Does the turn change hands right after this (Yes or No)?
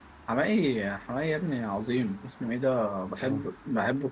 No